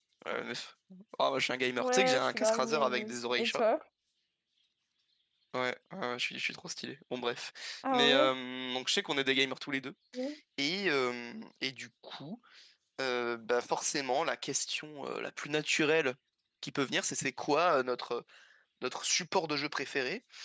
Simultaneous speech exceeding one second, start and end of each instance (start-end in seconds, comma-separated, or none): 1.8-3.6